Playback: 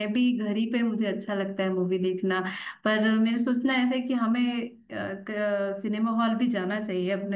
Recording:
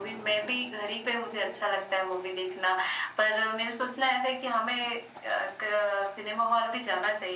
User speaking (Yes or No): No